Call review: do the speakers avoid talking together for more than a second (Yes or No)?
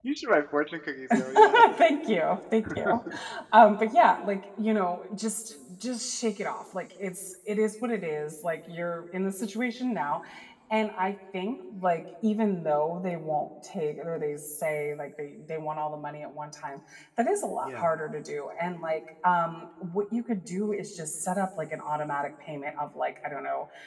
Yes